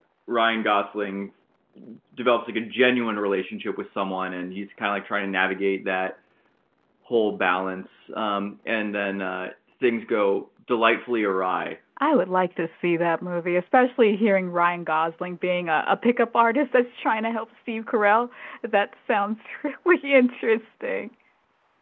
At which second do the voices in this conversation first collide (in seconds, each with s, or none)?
none